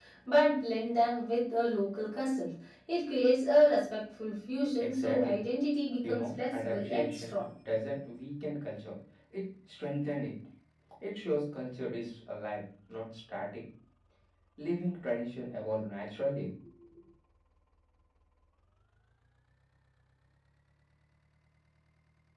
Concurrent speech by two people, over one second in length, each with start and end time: 6.0-7.4

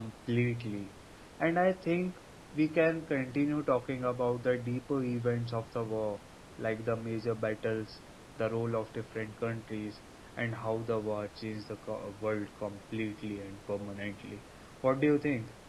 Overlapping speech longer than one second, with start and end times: none

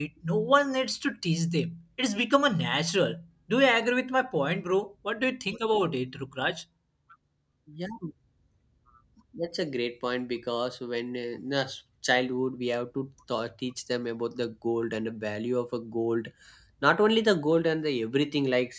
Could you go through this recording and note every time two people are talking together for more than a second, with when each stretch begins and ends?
none

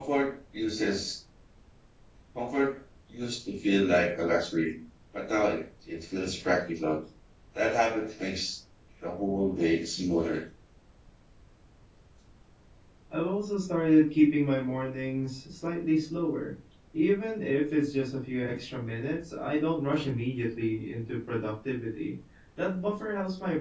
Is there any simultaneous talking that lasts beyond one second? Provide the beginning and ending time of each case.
none

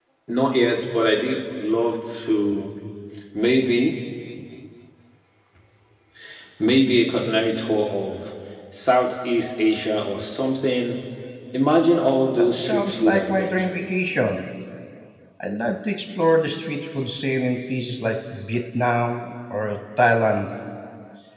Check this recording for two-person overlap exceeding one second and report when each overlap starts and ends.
12.4-13.8

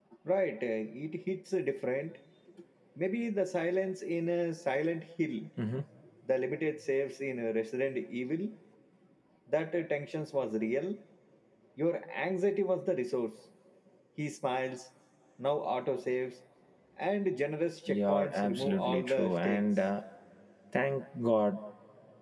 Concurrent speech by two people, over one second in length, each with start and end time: 17.9-19.6

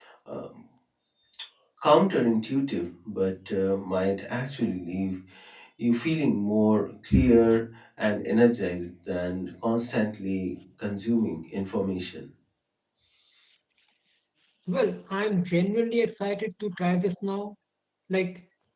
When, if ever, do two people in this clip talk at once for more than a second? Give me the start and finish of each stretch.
none

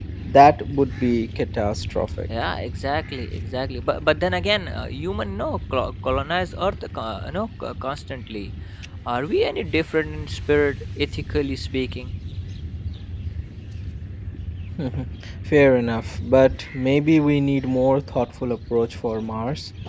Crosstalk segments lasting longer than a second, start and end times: none

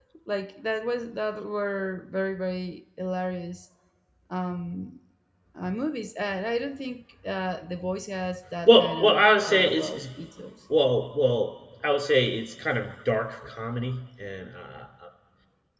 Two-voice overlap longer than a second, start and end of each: 8.6-10.0

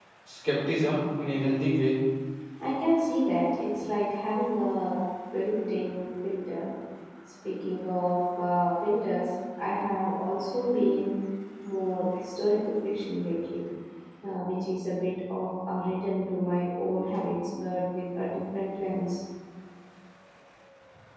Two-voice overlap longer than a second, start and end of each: none

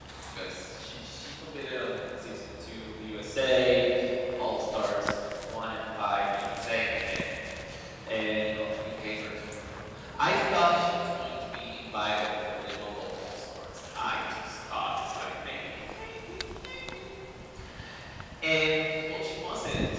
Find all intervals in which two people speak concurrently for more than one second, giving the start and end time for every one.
none

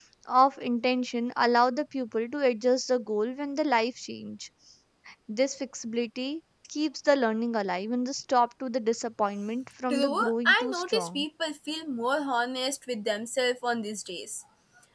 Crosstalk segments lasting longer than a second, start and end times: 9.9-11.2

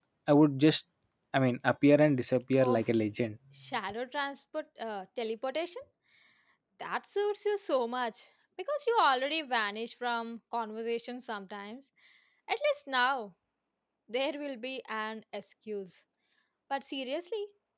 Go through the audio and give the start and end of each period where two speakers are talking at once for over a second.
none

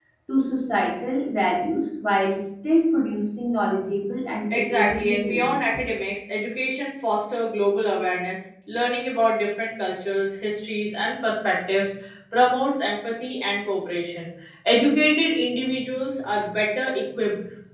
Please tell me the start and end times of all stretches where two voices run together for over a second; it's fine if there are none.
4.5-5.8

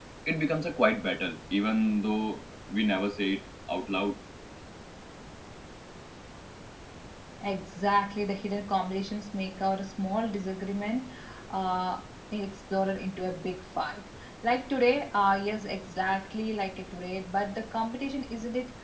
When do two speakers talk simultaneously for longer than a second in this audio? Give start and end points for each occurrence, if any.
none

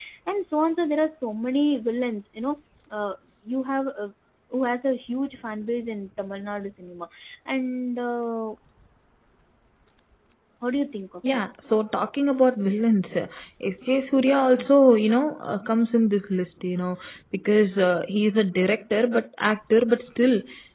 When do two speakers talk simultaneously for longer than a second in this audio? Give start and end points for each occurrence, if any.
none

